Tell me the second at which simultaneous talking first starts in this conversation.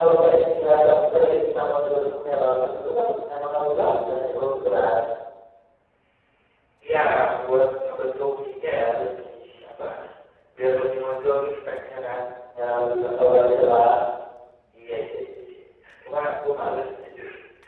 none

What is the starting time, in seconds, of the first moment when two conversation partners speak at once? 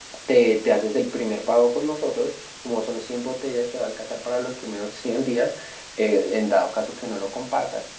none

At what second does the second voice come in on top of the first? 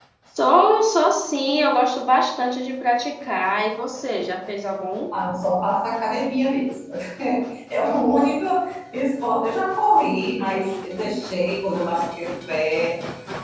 none

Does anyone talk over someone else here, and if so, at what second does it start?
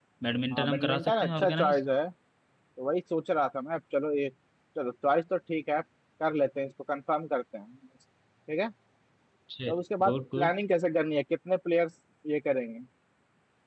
0.5 s

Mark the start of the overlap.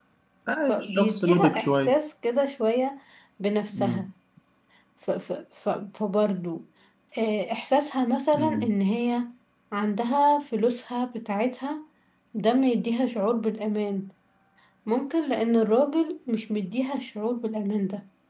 0.7 s

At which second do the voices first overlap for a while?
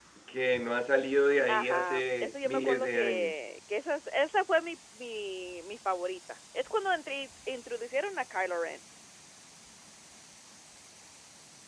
1.5 s

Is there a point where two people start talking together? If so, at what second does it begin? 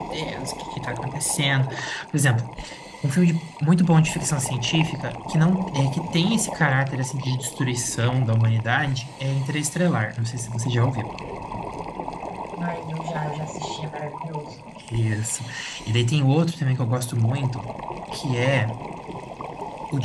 none

